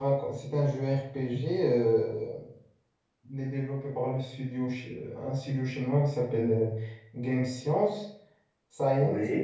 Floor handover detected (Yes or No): No